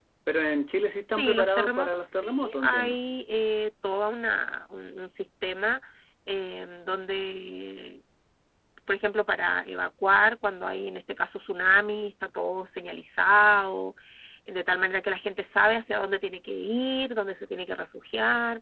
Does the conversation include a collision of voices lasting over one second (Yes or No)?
Yes